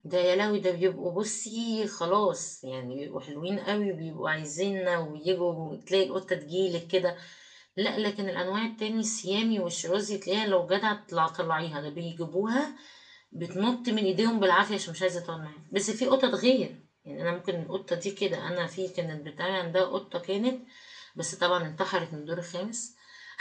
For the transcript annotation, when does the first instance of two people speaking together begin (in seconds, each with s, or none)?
none